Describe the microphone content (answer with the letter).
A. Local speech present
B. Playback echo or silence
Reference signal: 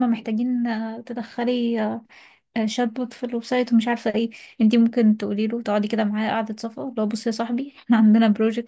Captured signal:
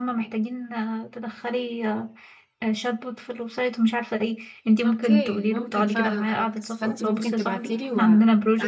A